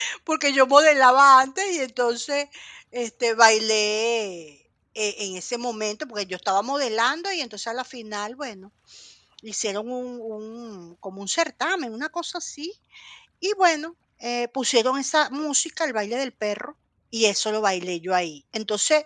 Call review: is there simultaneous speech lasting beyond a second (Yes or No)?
No